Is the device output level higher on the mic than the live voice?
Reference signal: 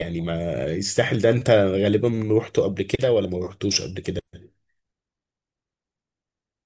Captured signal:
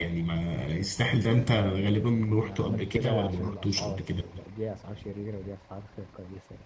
Yes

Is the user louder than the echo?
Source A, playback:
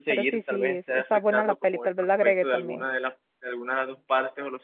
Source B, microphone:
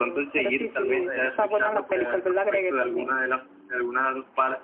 No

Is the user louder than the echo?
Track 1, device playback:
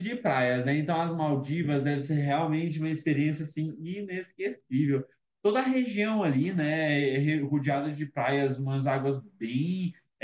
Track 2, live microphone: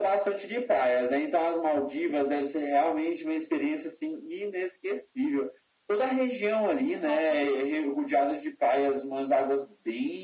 No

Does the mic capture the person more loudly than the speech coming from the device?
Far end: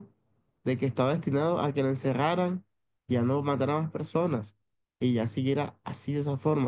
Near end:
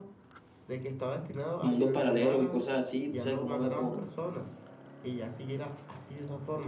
Yes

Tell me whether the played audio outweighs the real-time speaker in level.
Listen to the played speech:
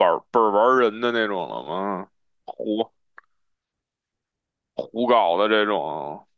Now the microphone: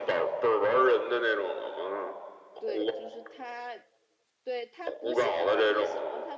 Yes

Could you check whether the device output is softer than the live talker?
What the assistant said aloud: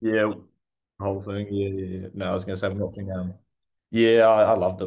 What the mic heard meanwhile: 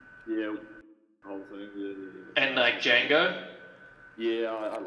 Yes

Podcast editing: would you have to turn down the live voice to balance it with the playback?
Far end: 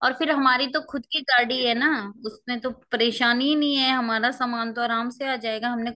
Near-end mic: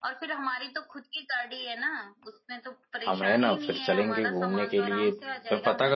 Yes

